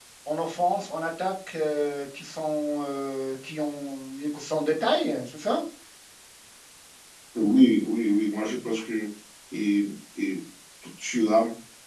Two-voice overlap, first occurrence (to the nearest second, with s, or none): none